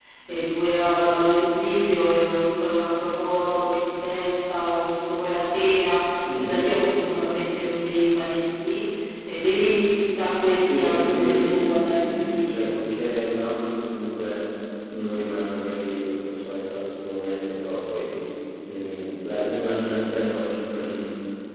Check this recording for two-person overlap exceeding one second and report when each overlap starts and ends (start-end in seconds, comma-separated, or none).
10.6-12.8